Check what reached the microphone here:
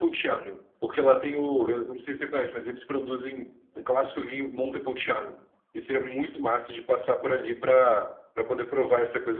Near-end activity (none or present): none